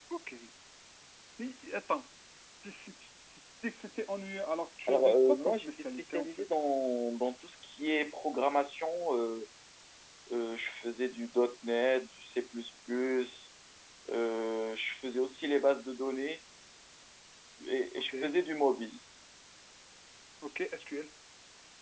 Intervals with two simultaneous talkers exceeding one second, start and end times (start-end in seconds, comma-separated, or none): 4.9-6.3